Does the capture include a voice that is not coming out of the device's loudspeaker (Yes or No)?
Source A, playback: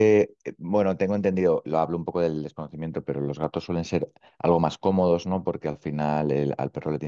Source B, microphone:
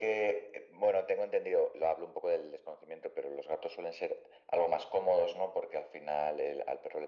No